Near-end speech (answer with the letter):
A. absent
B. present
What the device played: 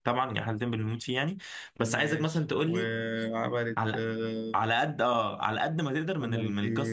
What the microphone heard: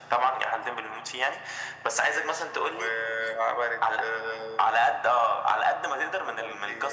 A